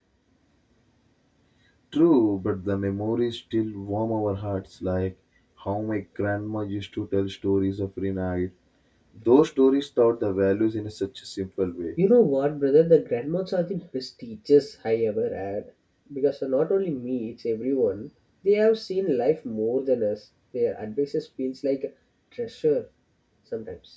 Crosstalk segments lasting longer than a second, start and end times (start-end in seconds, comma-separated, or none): none